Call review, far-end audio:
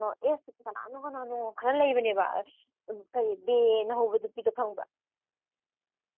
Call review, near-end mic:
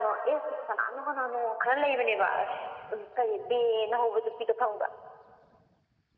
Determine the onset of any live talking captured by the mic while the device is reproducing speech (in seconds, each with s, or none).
none